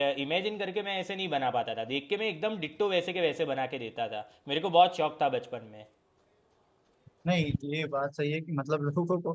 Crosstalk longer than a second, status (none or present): none